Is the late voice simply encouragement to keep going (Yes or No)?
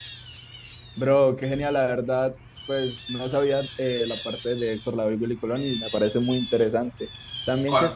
Yes